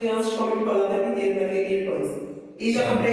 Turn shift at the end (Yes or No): No